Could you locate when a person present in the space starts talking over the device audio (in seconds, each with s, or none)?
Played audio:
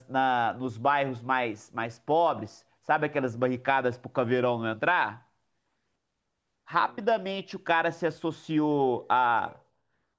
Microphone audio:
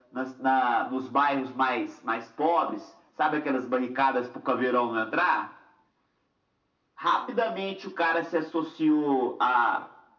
none